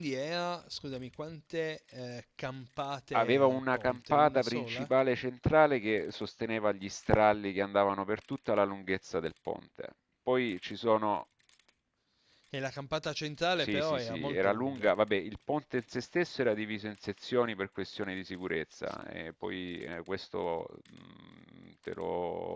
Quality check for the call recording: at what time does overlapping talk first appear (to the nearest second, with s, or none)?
3 s